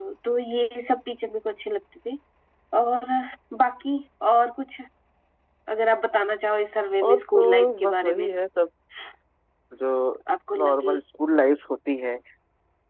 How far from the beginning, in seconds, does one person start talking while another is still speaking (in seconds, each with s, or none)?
7.1 s